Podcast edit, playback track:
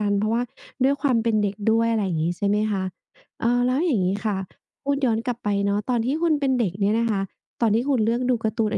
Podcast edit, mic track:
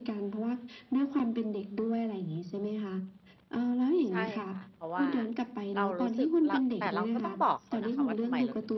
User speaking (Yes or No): Yes